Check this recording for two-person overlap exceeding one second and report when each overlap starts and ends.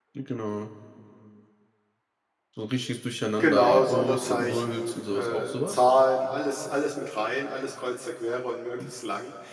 3.4-5.8

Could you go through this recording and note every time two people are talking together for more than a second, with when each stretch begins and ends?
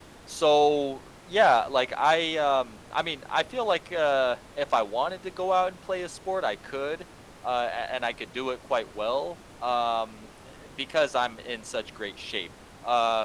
none

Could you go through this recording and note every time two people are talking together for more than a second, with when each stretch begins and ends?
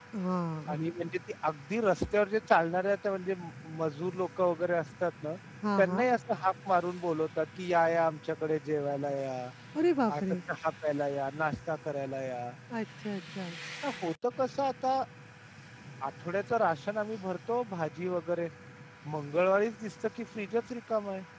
none

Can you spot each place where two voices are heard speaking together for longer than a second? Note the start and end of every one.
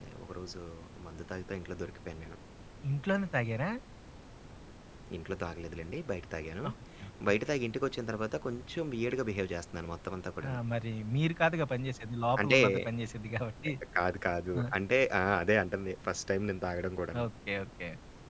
none

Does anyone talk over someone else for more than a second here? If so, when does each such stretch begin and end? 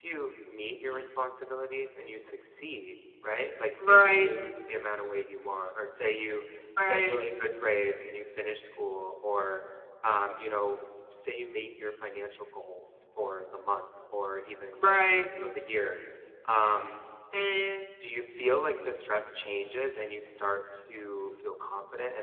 none

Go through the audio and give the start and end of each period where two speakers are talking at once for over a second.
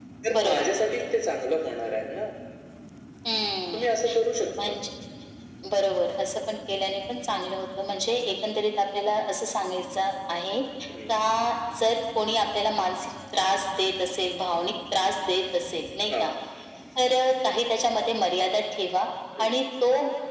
none

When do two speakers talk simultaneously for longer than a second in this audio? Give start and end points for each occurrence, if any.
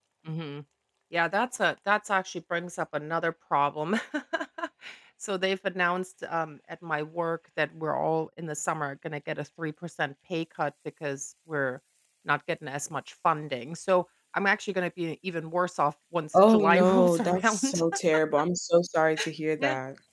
16.3-17.8

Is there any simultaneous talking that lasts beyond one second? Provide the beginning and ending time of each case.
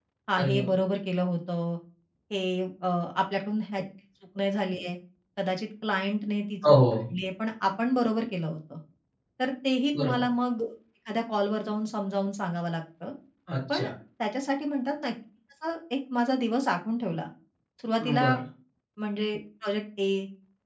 none

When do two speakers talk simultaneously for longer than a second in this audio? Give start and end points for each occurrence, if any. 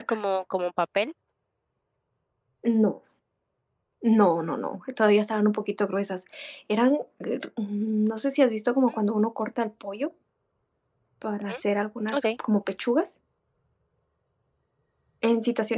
none

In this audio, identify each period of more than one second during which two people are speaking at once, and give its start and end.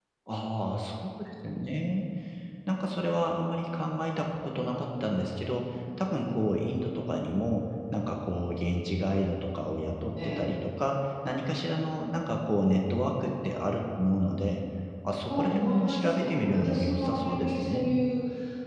15.3-17.9

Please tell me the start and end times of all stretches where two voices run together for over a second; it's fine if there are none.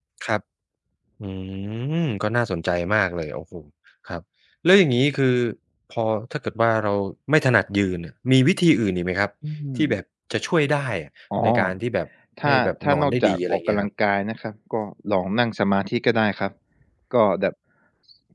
12.4-13.9

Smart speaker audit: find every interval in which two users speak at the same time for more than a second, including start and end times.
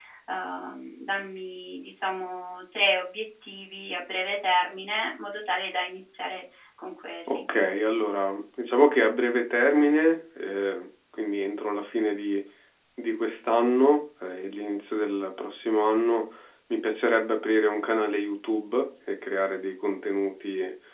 none

